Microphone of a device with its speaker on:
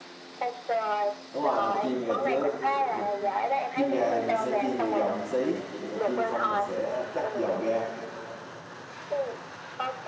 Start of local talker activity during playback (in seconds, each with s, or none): 1.3 s